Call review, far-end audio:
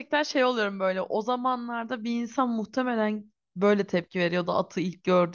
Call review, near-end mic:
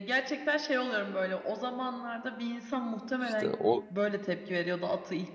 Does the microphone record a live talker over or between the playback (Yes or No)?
Yes